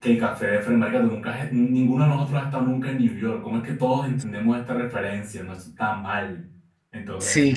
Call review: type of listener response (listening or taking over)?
taking over